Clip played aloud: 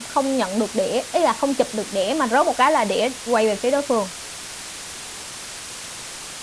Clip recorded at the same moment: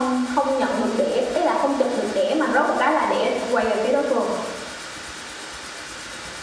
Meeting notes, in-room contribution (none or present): none